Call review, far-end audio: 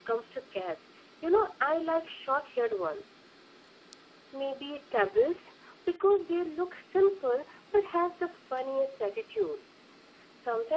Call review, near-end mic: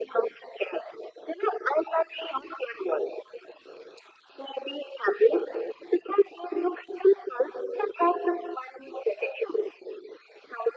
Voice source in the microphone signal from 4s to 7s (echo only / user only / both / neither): echo only